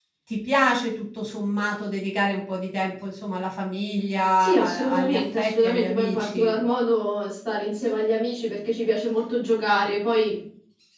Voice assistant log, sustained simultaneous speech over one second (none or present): present